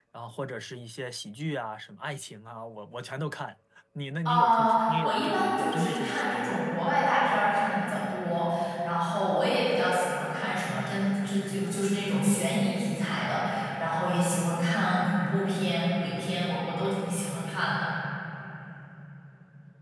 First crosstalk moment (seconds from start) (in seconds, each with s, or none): 4.2 s